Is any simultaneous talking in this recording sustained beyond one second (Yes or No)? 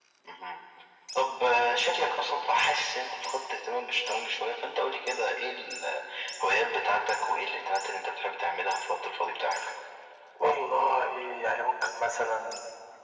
No